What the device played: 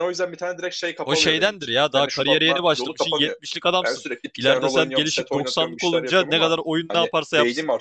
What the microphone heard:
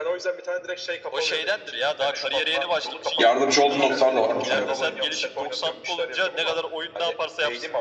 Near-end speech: present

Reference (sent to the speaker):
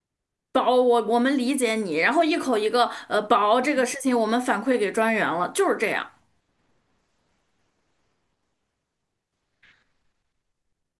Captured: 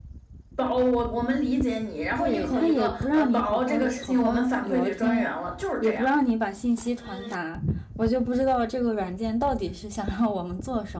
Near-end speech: present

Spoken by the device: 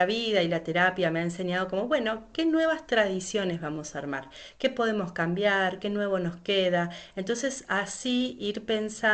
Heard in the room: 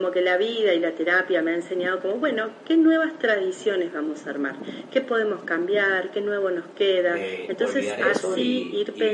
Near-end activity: present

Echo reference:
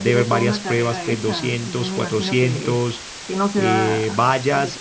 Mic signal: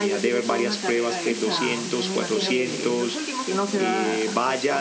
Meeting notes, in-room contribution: present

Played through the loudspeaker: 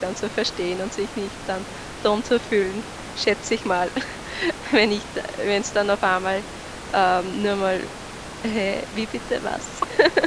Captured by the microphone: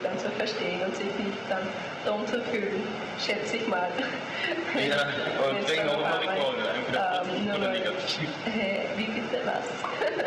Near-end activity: present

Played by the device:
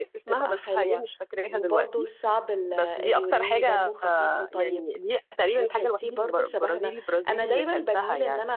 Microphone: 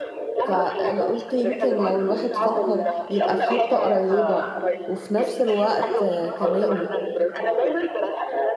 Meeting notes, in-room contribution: present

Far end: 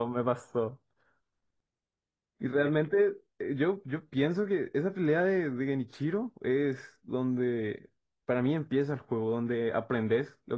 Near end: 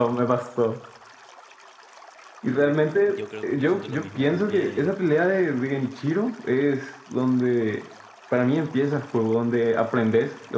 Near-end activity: present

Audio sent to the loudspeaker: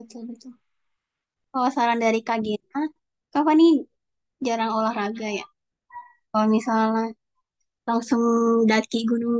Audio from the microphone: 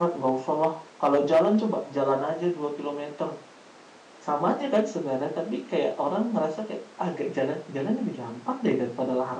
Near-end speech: present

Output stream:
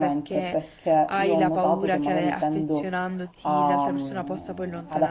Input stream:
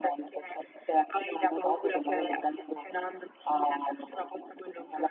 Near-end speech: none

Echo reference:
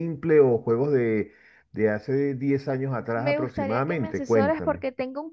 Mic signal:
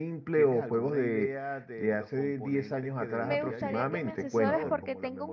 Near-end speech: present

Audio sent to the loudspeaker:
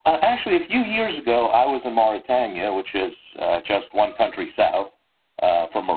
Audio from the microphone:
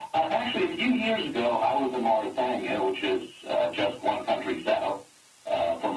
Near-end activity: none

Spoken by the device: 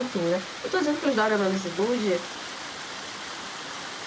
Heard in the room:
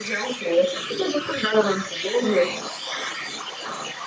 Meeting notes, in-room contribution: none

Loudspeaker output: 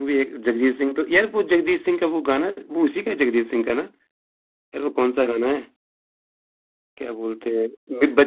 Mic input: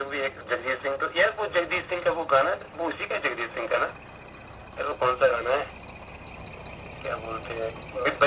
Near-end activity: none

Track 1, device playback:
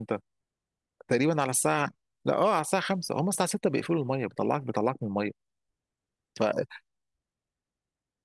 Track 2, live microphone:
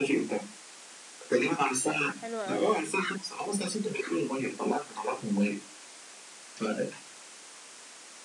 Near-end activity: present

